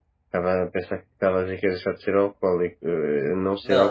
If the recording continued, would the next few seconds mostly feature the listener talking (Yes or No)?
Yes